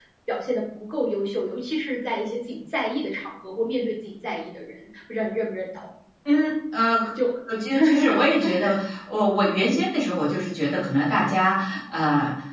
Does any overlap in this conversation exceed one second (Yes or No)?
No